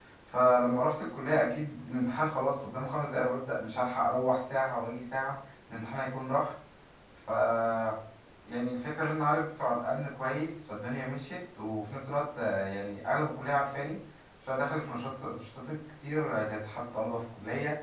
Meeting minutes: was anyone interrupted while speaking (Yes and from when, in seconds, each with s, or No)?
No